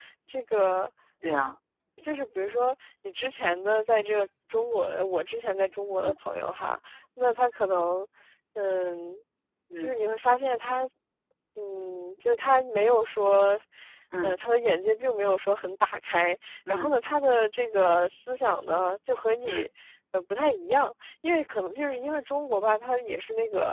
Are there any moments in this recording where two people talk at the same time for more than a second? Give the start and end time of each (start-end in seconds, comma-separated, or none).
none